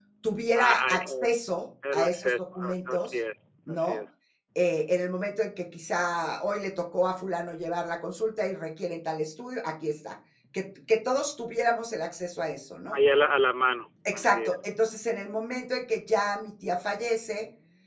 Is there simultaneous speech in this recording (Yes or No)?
Yes